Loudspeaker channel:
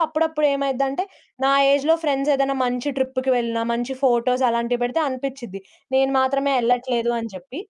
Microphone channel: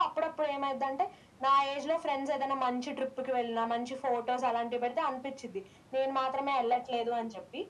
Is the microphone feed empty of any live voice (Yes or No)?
Yes